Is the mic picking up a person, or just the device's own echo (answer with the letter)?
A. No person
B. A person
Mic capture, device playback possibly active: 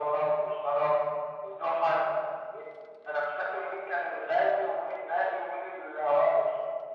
A